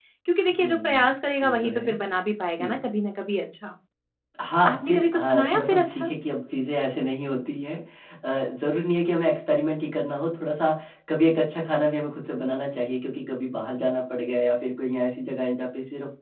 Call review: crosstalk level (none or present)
present